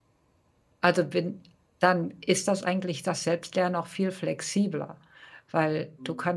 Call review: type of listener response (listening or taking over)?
listening